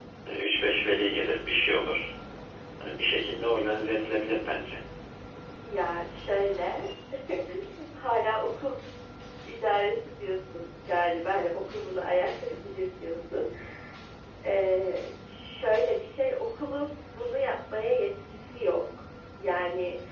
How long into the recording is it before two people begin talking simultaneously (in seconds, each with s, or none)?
none